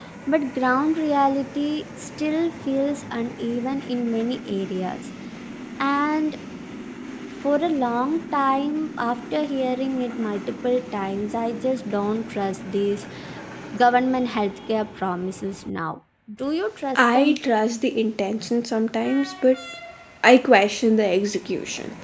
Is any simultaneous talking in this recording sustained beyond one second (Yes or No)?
No